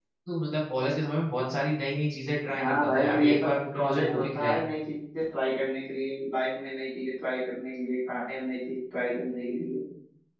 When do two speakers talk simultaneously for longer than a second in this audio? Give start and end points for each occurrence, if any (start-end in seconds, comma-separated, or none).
2.6-4.6